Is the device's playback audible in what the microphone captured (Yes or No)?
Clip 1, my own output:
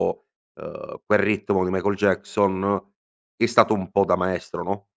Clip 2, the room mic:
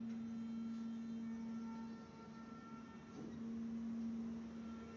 No